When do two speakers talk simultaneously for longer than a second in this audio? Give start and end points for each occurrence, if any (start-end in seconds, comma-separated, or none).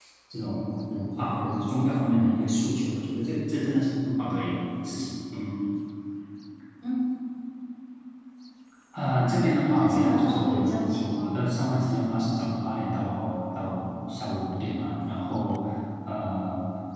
9.6-11.5